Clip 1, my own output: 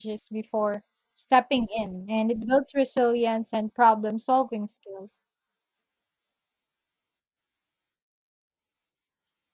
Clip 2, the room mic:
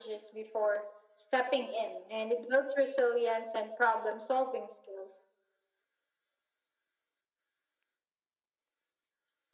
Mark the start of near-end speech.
none

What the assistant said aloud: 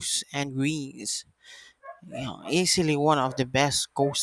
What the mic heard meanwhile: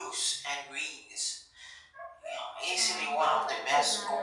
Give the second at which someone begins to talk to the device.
3 s

